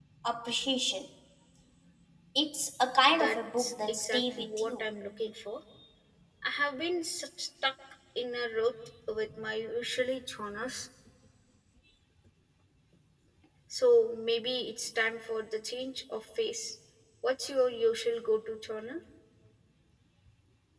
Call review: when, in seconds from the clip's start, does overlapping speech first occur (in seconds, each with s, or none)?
3.1 s